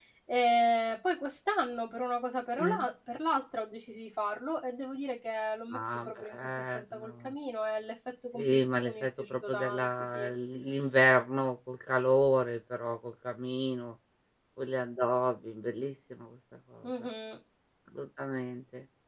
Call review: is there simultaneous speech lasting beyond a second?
Yes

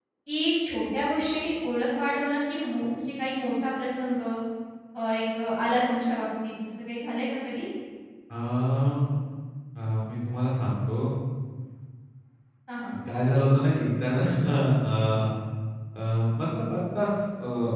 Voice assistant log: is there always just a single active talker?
Yes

